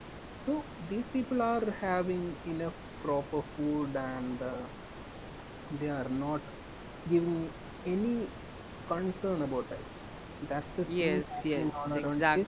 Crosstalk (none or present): present